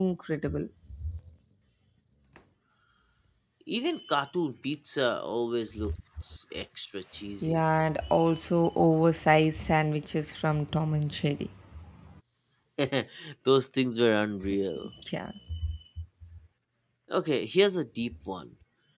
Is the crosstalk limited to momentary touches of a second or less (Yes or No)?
Yes